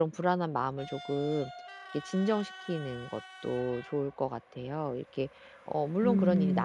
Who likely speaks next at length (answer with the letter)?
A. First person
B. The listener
A